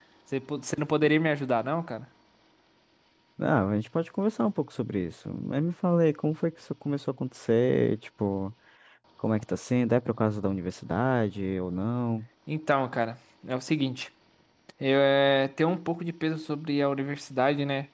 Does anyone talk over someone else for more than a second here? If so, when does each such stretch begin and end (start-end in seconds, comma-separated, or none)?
none